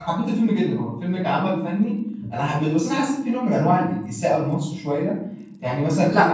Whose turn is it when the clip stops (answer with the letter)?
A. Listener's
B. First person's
B